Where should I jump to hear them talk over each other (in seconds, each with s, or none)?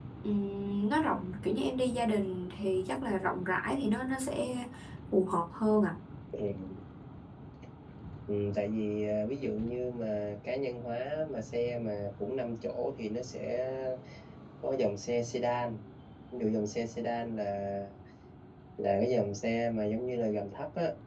none